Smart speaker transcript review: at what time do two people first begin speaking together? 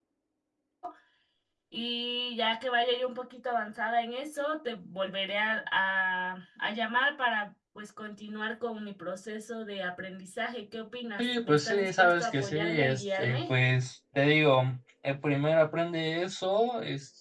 11 s

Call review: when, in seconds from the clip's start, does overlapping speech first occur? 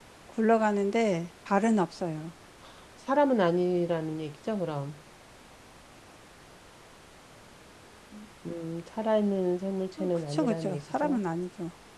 10 s

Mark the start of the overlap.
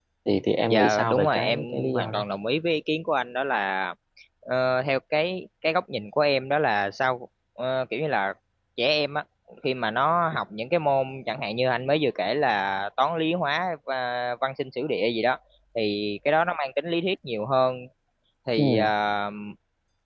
1 s

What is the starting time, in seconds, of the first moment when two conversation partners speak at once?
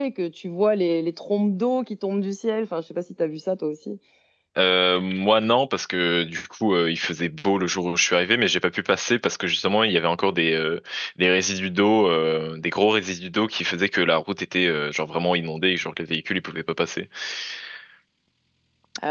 none

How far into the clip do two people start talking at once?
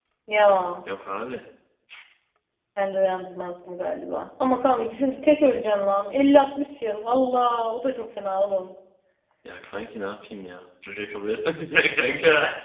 none

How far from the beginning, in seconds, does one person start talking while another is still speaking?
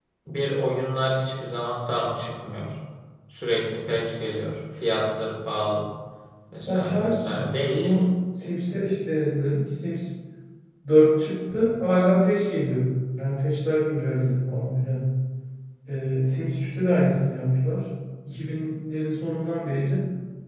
7 s

